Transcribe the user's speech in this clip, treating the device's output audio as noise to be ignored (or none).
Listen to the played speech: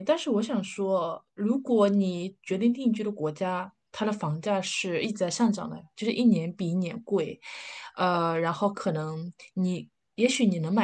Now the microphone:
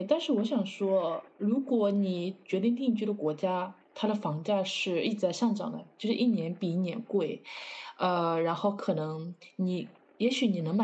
none